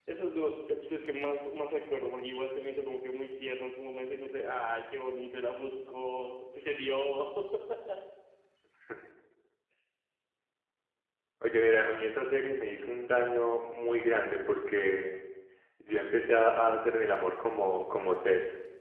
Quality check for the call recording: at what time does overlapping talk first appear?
none

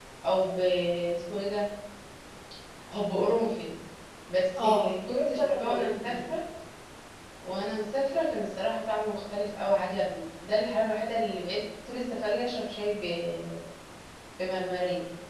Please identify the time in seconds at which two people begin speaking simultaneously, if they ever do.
4.6 s

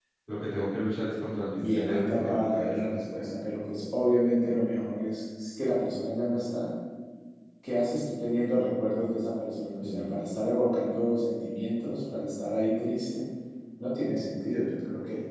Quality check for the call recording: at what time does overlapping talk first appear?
1.6 s

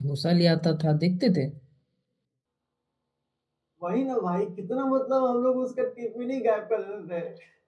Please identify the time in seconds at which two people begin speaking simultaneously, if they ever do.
none

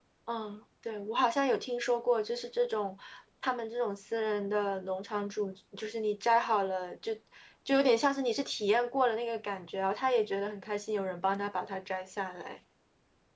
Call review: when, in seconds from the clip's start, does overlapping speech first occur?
none

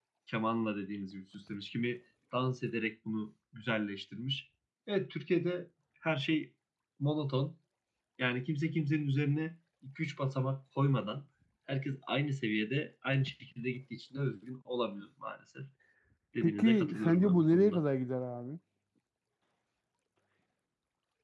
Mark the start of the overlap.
16.4 s

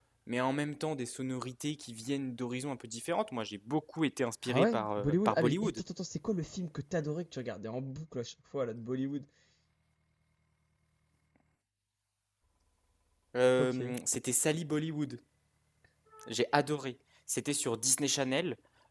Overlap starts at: 4.5 s

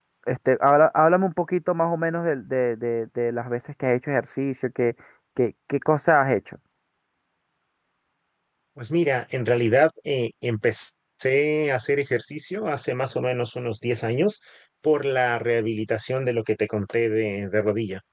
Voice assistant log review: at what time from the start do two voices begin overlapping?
none

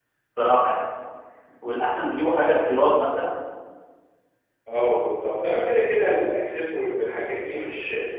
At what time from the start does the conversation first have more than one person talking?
none

